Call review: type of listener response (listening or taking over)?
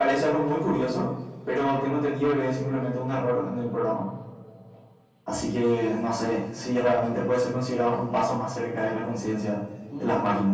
taking over